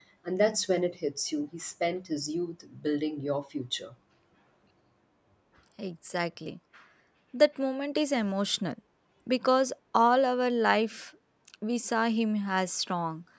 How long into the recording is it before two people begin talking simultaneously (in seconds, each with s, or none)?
none